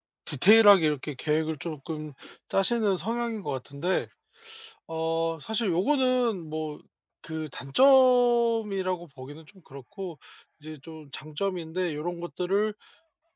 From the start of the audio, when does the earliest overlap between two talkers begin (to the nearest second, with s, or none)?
none